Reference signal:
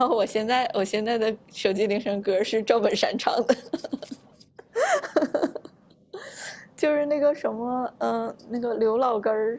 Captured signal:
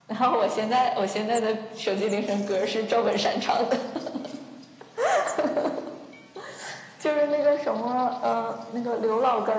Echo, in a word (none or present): present